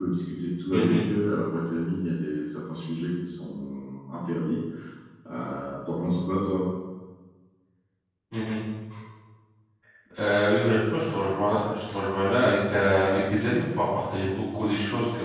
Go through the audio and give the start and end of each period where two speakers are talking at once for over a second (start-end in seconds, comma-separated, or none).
none